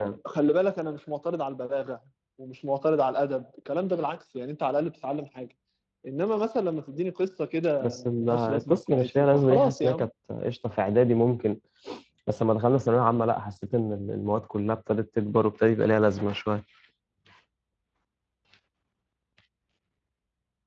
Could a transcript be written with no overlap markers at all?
No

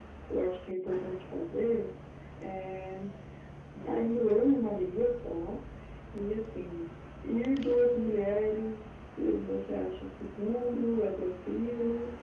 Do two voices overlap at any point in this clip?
No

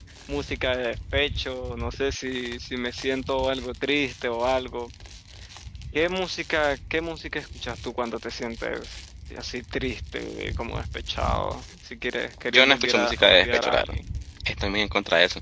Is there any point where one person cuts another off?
Yes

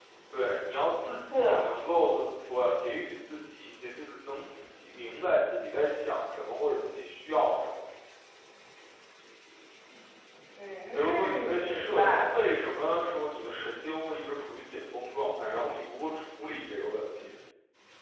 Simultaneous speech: Yes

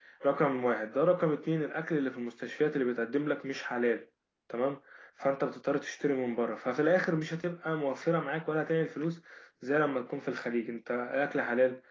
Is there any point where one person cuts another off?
No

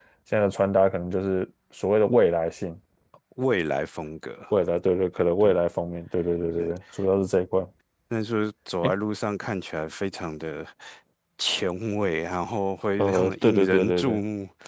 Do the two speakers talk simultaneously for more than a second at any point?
Yes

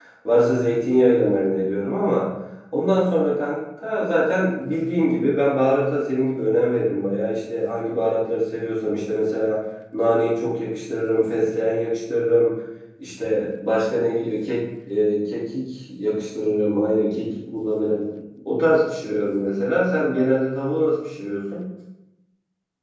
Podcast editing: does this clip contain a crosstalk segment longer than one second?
No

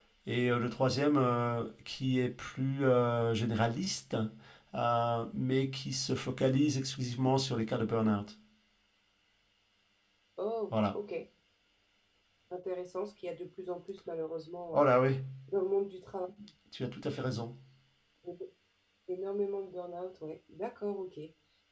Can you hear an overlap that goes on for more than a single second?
No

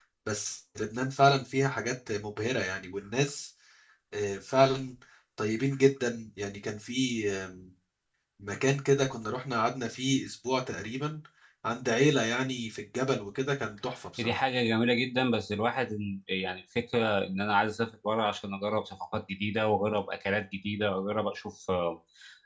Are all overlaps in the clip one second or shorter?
Yes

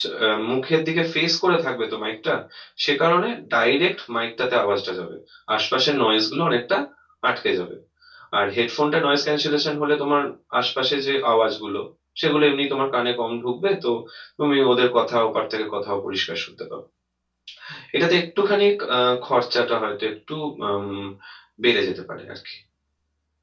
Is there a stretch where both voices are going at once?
No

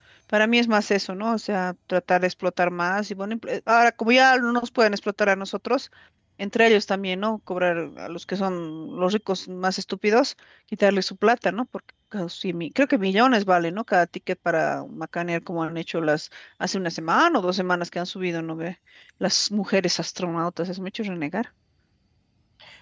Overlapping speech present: No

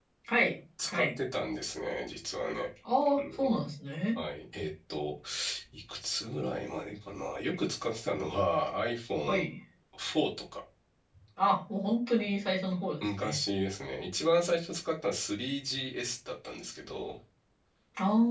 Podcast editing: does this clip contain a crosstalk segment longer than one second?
No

